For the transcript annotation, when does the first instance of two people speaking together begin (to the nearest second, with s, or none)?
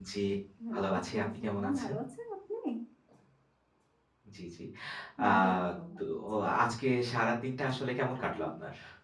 1 s